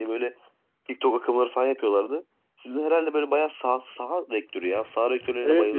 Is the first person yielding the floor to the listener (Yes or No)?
Yes